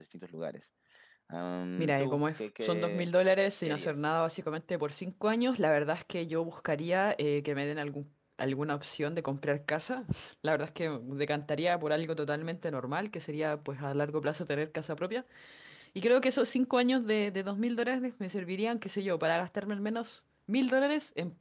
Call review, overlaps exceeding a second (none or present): present